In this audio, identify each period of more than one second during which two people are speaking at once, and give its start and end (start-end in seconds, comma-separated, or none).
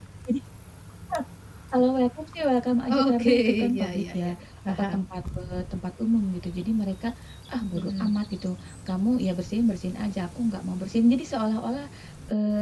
2.9-4.3